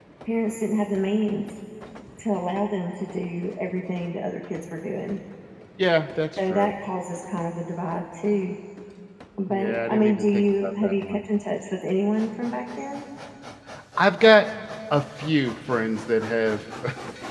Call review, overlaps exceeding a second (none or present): present